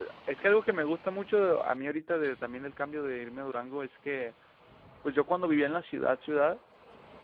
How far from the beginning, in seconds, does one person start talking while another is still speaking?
none

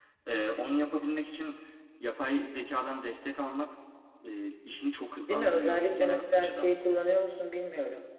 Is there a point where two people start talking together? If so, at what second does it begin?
5.3 s

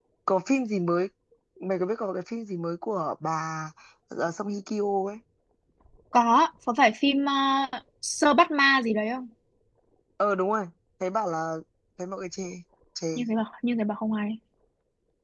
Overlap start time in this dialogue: none

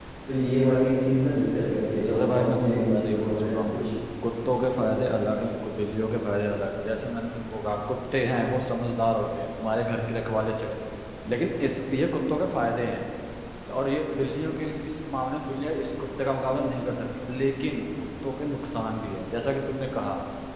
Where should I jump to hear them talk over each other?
2.0 s

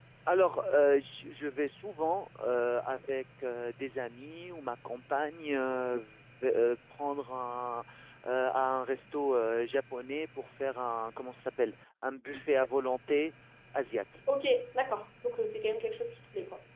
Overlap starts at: none

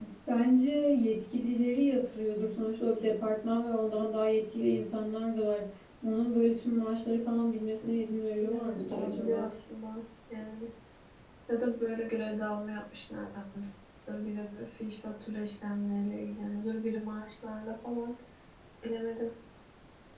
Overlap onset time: 7.8 s

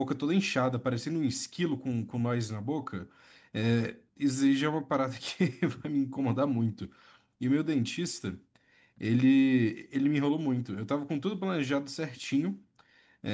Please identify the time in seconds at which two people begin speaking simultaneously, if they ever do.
none

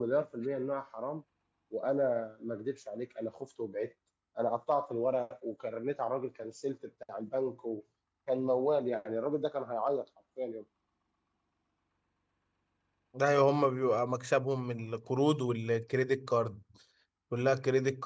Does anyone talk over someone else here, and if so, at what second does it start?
none

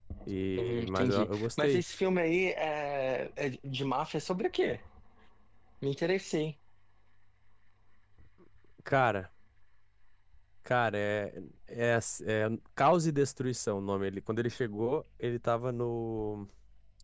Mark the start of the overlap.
0.6 s

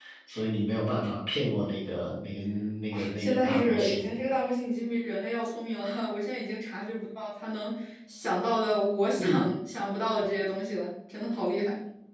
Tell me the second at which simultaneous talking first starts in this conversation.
2.9 s

